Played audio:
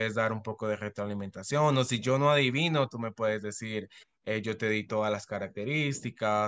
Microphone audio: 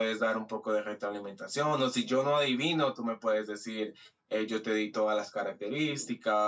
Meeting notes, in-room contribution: none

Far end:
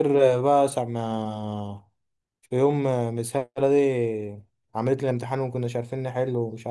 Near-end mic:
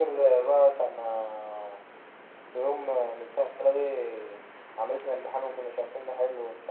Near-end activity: none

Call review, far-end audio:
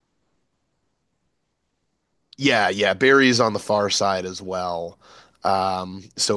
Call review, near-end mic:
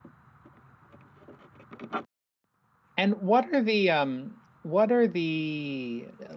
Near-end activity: present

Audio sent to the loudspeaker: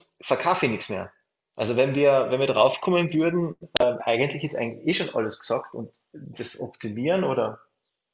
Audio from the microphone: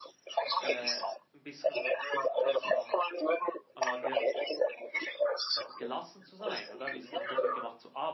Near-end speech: present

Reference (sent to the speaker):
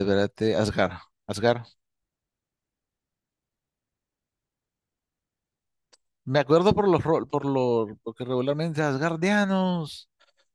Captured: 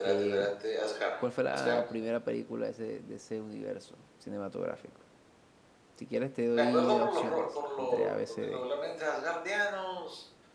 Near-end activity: present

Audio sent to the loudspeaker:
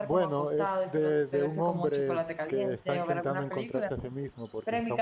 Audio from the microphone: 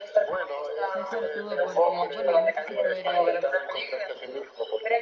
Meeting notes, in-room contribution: present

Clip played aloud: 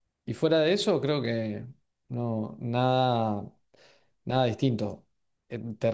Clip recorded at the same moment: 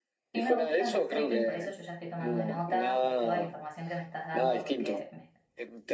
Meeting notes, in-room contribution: present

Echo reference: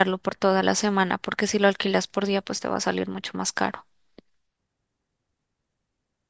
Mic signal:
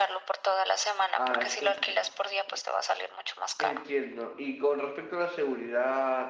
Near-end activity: present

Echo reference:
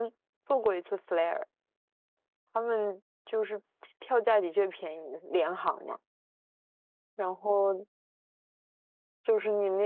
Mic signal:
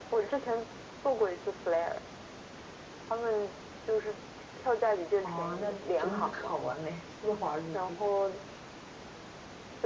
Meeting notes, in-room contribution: present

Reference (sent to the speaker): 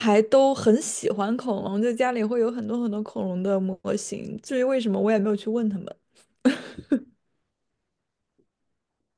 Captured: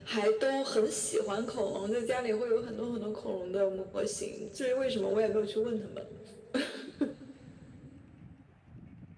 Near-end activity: none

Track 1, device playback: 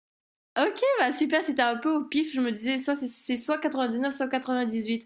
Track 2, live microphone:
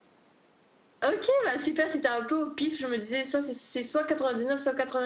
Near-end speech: none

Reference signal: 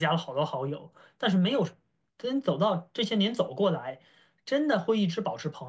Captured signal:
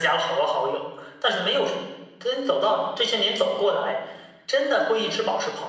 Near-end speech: none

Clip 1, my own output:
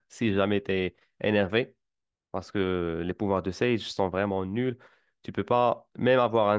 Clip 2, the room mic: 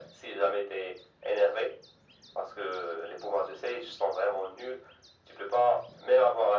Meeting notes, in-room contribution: none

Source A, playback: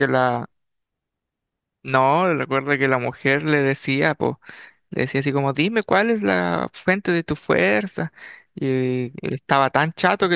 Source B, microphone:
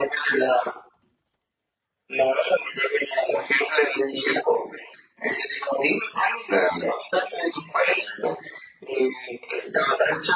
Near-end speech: none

